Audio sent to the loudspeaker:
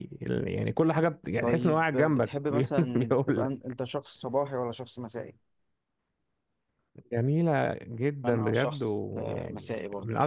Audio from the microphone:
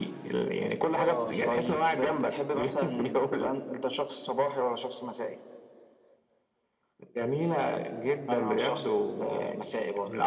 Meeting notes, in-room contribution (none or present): present